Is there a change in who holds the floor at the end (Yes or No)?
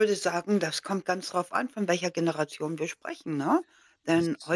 No